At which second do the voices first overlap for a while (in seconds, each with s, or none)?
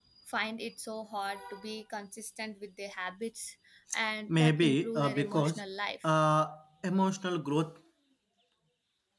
4.3 s